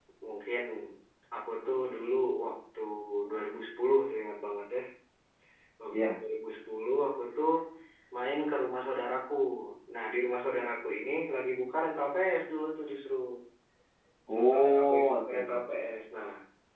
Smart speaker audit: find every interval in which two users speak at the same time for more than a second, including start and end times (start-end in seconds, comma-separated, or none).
14.3-15.6